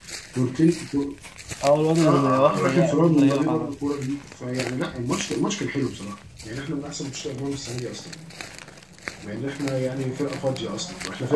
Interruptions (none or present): present